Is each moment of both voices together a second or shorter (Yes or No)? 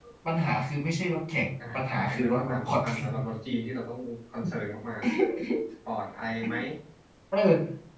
No